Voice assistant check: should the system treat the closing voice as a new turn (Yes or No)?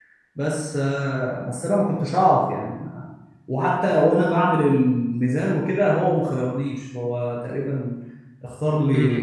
Yes